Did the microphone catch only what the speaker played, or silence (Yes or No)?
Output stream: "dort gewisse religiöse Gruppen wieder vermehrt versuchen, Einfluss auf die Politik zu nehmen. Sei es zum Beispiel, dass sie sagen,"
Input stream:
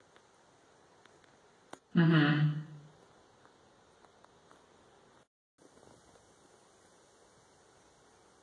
No